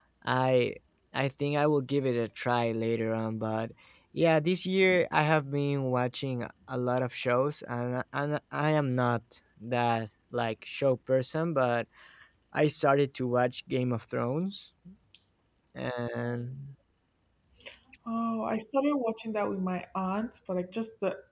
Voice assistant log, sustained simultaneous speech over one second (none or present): none